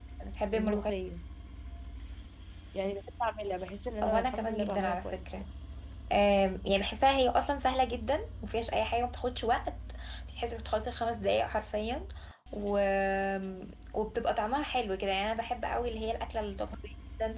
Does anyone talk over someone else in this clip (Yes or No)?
Yes